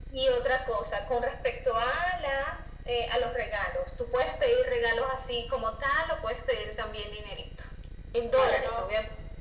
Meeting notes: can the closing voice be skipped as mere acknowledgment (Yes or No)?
Yes